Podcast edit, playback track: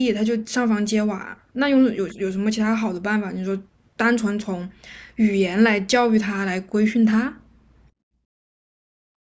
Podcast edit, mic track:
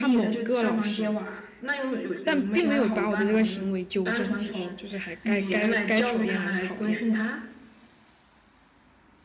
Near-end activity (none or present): present